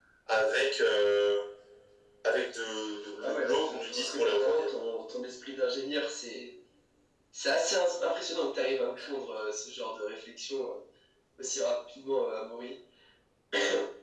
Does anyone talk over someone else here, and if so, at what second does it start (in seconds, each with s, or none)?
3.2 s